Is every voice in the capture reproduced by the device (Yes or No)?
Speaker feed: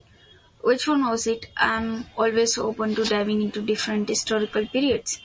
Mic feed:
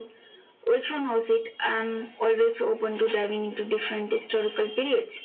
Yes